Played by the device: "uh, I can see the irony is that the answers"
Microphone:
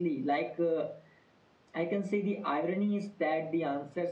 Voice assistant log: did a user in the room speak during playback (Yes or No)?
No